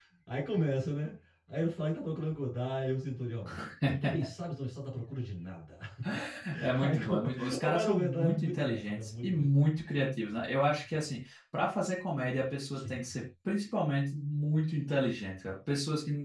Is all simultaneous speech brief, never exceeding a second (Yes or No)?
No